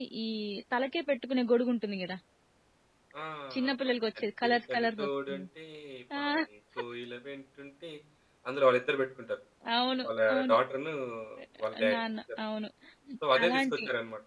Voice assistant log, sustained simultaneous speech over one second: present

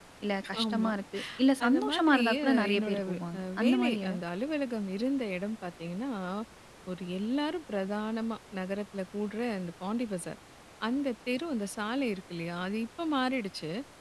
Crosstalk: present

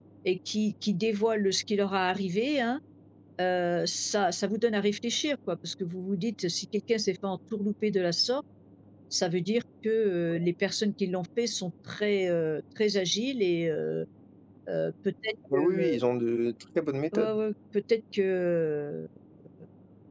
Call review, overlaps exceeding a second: none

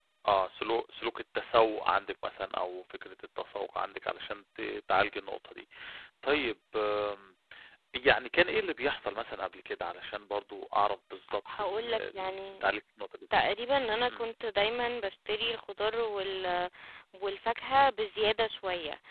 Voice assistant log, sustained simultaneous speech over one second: present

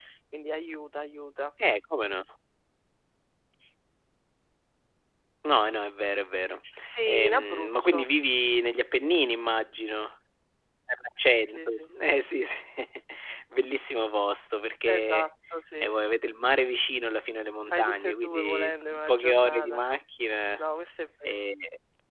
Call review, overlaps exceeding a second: present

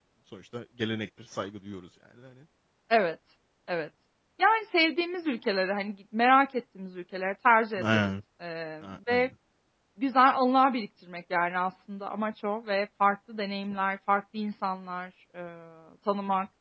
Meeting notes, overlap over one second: none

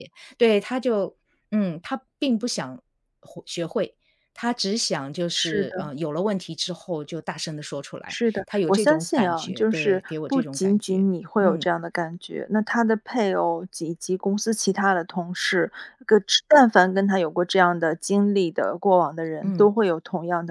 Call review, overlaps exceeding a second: present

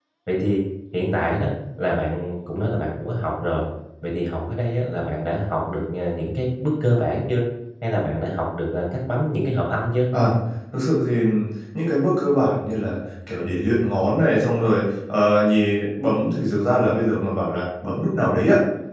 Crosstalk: none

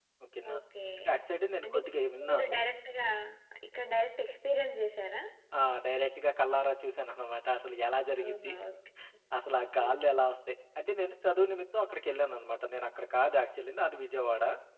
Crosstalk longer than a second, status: none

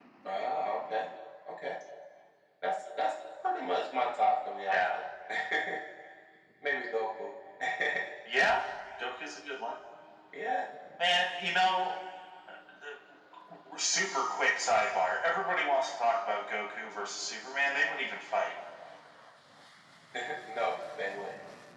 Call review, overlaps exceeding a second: none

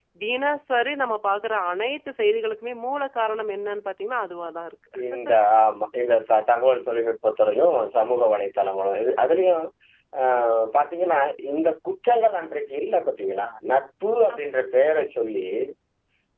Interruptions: none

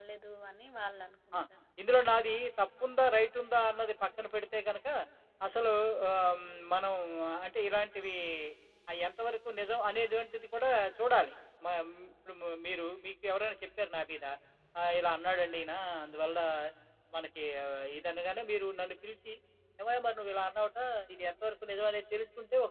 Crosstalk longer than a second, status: none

